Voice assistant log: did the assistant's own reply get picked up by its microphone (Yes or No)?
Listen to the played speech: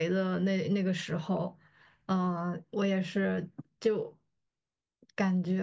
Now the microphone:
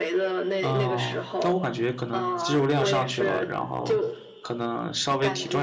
Yes